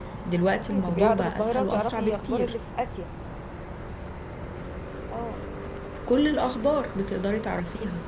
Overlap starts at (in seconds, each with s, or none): 0.7 s